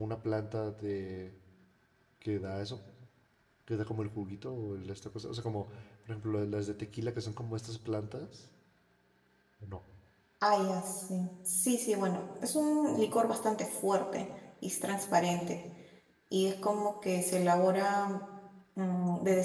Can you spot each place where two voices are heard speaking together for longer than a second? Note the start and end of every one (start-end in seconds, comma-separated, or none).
none